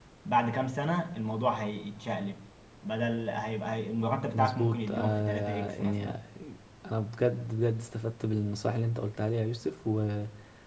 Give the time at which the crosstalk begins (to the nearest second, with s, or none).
4 s